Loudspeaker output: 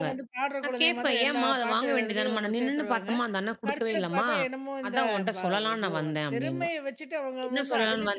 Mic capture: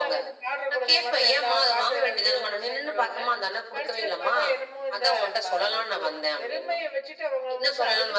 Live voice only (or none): none